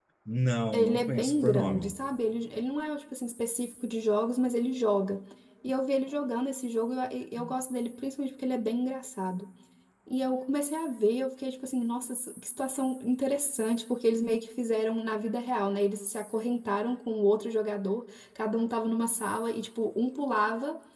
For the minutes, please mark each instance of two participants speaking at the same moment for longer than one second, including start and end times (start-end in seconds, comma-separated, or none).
0.7-1.9